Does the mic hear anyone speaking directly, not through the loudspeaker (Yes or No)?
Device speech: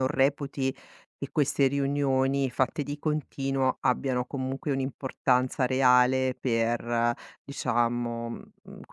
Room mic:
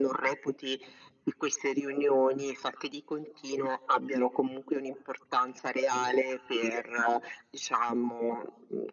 No